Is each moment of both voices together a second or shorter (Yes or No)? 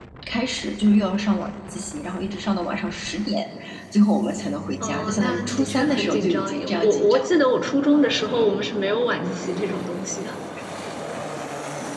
No